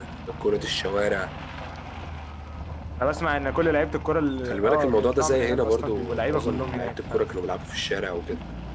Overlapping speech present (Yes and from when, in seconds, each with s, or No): Yes, from 4.4 s